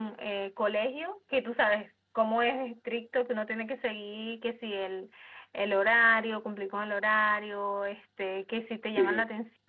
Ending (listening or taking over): listening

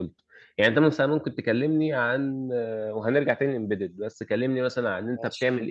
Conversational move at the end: listening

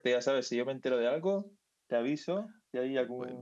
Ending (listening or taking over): listening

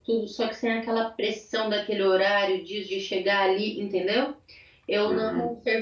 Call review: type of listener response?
listening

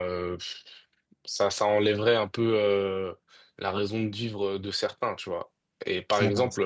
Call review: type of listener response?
listening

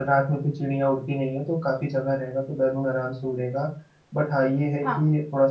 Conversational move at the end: listening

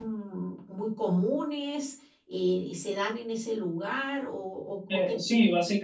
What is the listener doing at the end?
taking over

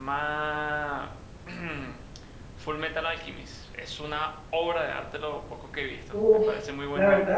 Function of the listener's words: taking over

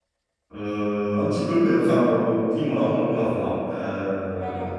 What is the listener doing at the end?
taking over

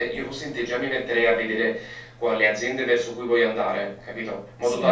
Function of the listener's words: listening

